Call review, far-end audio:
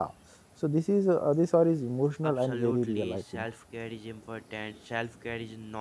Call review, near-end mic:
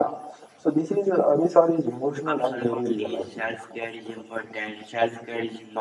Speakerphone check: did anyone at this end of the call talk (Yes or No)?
No